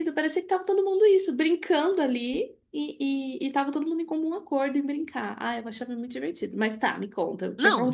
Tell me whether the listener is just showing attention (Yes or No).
No